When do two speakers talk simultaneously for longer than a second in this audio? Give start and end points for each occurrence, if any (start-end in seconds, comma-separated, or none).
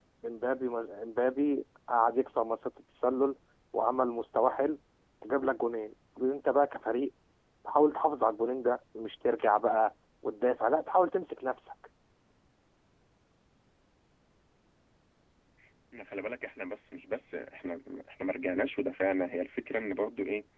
none